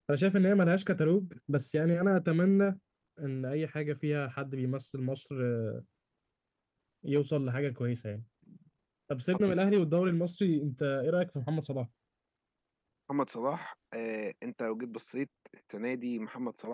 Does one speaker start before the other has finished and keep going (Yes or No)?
No